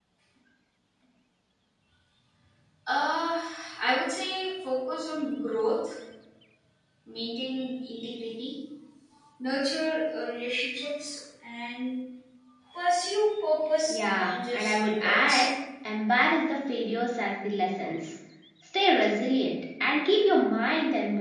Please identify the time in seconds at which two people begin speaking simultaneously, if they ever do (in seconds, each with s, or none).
13.9 s